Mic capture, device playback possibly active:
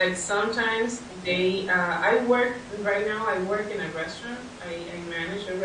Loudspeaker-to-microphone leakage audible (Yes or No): No